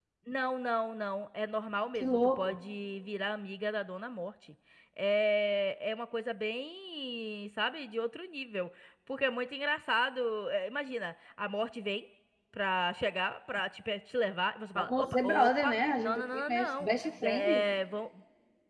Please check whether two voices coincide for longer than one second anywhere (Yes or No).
Yes